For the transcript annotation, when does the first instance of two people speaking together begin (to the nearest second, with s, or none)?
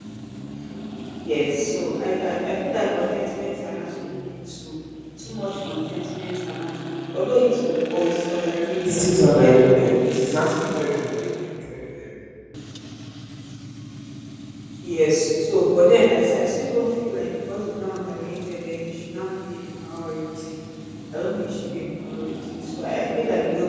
9 s